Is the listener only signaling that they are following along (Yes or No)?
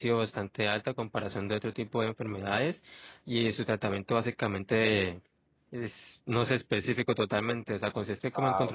Yes